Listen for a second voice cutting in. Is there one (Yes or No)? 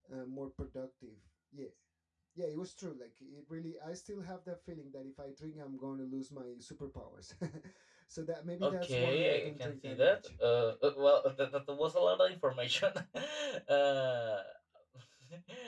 Yes